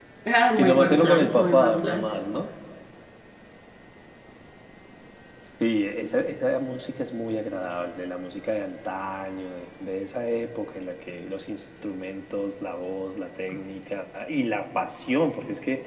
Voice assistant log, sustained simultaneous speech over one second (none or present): present